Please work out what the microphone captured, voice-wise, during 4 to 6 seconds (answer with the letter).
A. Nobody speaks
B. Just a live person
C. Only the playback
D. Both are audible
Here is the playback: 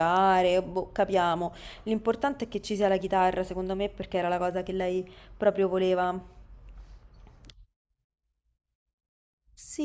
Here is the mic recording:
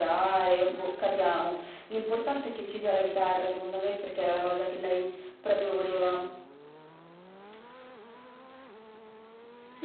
C